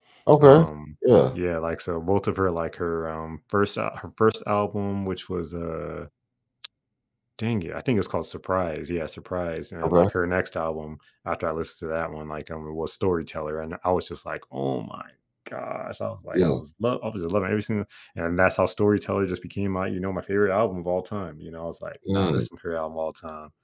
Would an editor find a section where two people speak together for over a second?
No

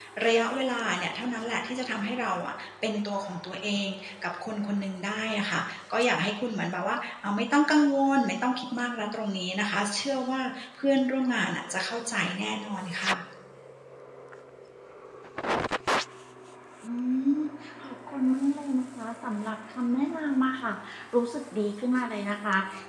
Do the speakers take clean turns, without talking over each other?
Yes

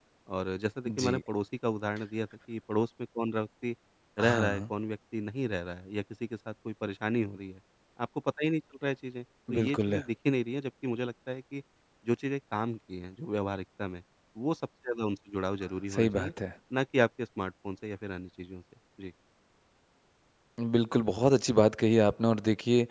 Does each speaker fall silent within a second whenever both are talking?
Yes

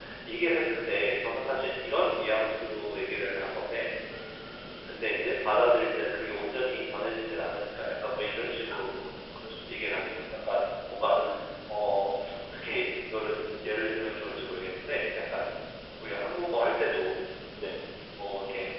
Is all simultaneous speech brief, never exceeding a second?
Yes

